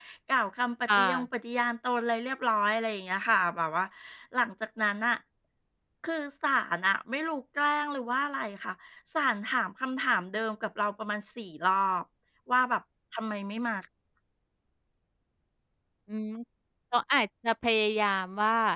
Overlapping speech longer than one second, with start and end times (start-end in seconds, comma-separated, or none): none